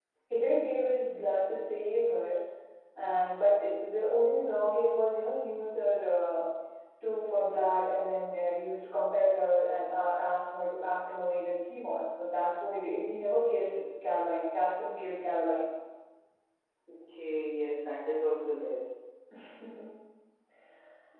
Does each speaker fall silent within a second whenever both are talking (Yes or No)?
Yes